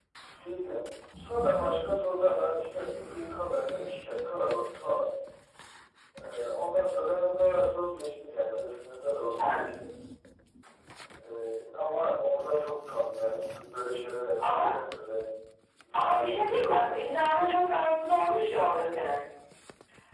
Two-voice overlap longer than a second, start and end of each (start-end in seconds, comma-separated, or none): 15.9-17.3